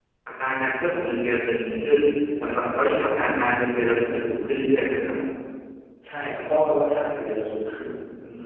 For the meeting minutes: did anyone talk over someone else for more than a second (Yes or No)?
No